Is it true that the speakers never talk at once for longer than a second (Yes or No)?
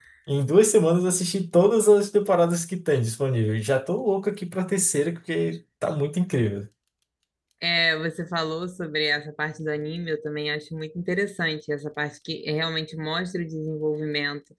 Yes